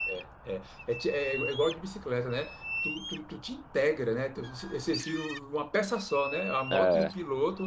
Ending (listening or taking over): listening